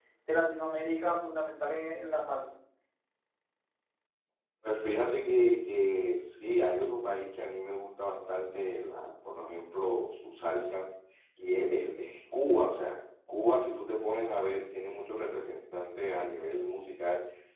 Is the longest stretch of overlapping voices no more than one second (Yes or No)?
Yes